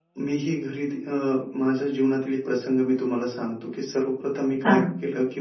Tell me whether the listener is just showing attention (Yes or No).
Yes